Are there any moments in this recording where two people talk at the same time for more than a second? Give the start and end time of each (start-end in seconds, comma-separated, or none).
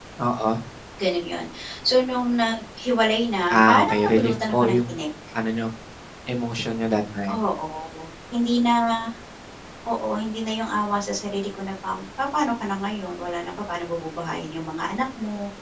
3.7-4.9